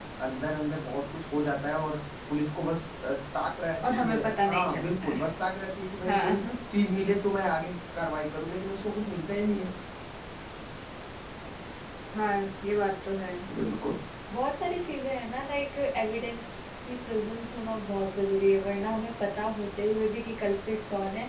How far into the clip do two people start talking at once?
3.9 s

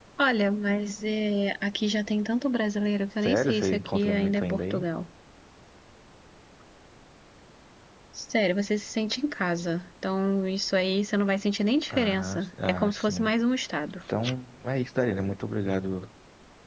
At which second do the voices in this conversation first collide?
3.2 s

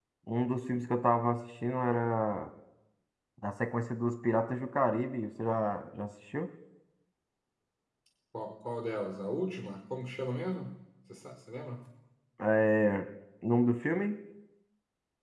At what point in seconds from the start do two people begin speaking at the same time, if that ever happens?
none

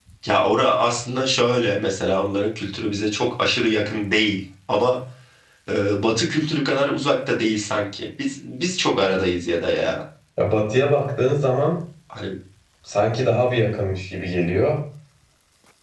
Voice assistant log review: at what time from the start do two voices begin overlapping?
none

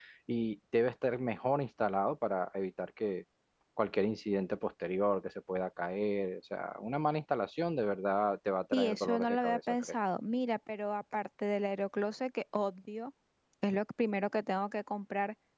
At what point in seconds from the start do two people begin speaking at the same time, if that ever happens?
8.7 s

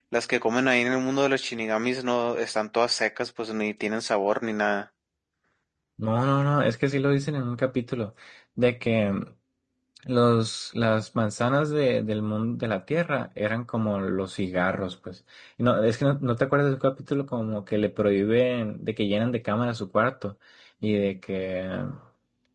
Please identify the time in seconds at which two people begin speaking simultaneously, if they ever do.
none

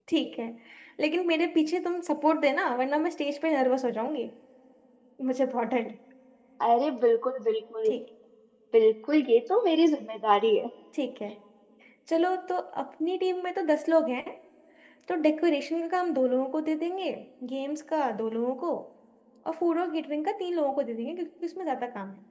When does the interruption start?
none

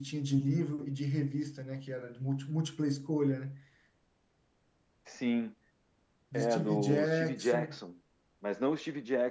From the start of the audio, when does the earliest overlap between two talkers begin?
6.3 s

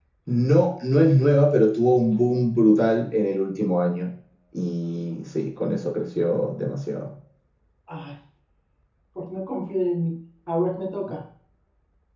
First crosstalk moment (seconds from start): none

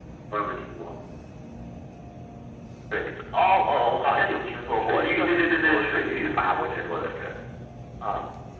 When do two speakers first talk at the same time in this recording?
4.8 s

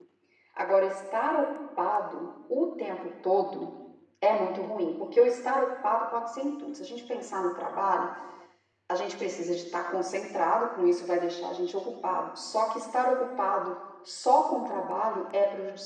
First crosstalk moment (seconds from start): none

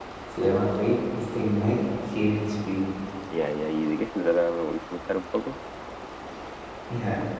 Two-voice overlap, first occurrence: none

